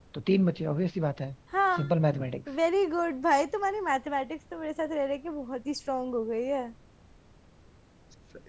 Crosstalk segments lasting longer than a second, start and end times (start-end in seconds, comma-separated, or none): none